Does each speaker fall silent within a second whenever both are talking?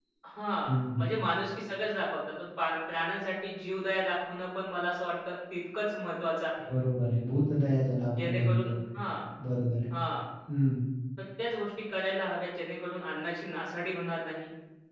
Yes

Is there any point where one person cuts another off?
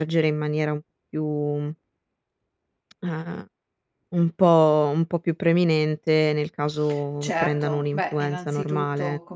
Yes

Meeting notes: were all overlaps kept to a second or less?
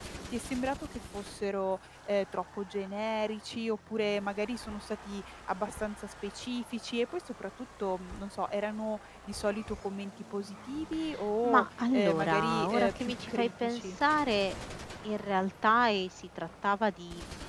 No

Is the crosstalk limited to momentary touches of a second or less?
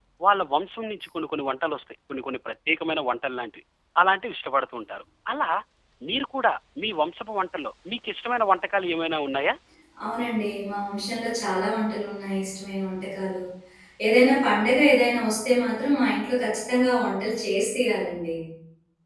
Yes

